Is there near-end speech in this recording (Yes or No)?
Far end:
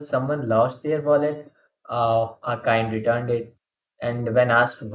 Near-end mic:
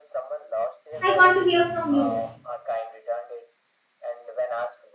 Yes